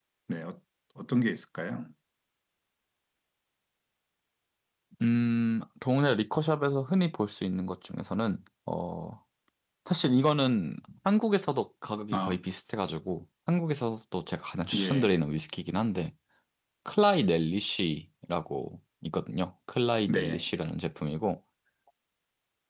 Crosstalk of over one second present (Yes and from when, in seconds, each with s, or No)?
No